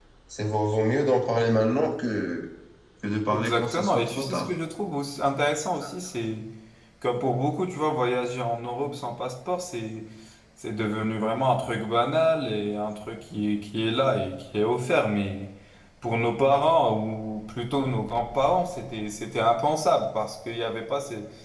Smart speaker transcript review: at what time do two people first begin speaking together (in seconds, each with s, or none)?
3.3 s